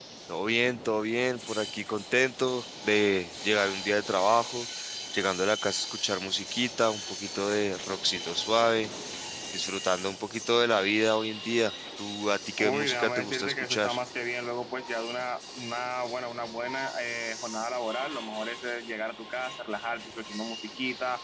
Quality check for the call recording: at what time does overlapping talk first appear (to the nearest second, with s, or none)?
13 s